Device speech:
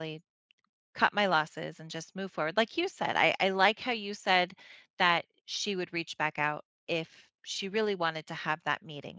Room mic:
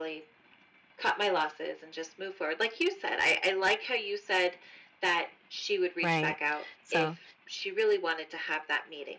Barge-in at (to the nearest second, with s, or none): 6 s